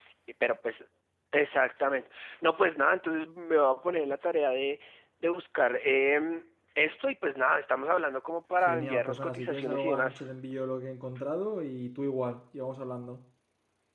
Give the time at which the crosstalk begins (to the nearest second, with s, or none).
9 s